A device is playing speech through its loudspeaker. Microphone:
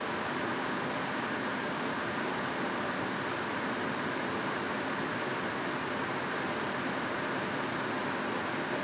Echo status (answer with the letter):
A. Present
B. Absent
B